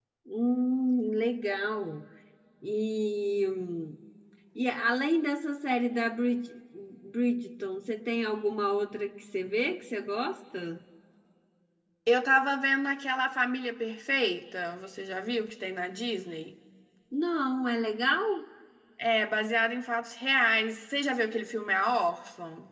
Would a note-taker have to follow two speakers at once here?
No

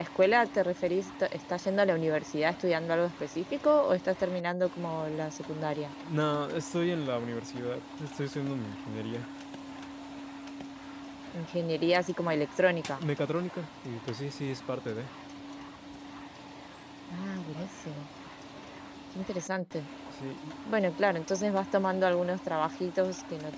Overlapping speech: No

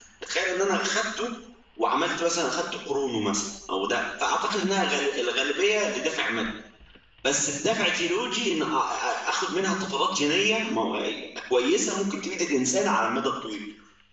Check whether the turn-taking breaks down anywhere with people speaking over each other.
No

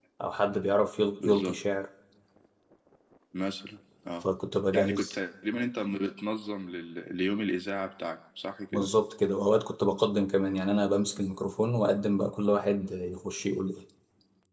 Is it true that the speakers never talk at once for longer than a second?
Yes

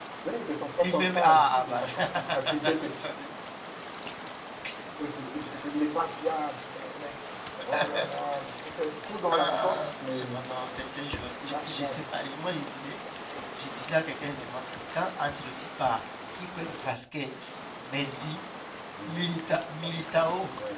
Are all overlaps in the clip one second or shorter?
No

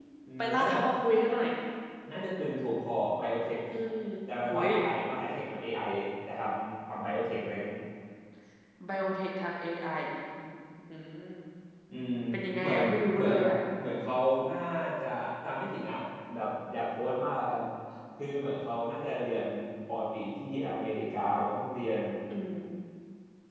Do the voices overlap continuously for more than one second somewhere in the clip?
No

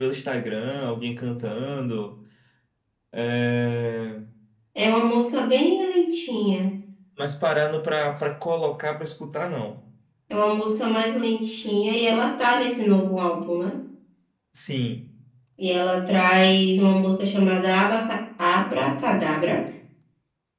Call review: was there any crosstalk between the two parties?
No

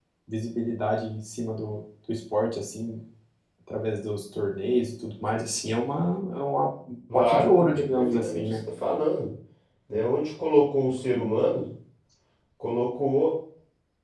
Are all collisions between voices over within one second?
No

